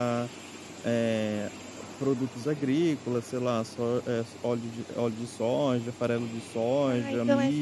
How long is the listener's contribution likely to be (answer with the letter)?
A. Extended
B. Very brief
A